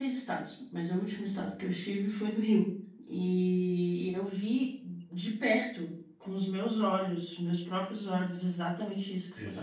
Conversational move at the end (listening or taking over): listening